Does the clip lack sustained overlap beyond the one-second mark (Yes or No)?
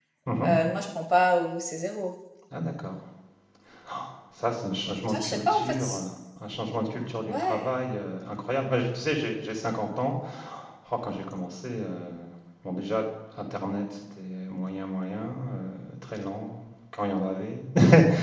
No